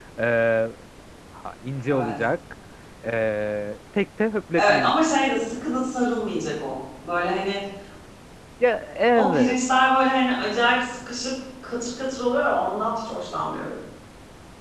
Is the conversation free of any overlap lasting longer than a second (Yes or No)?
Yes